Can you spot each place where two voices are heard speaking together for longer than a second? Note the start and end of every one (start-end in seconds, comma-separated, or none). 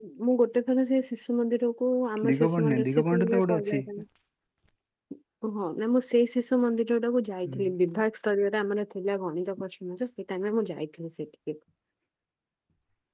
2.3-3.8